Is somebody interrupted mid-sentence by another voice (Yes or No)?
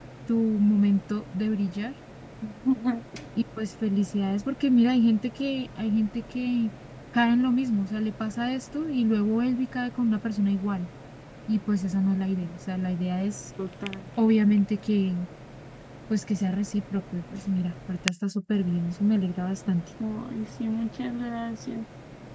No